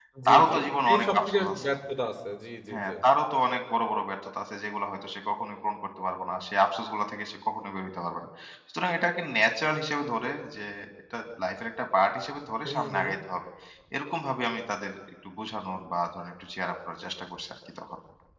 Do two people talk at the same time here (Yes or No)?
Yes